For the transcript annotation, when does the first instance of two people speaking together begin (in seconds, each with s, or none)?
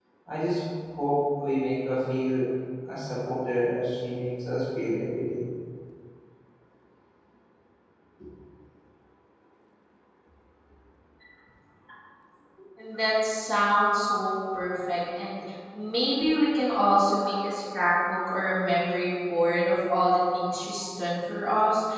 none